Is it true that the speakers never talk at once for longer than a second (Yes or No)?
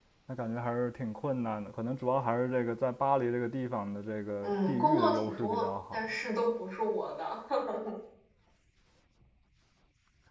No